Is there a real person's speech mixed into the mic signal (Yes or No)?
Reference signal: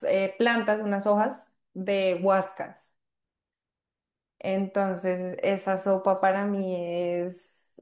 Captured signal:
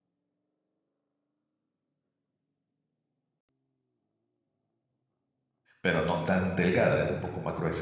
Yes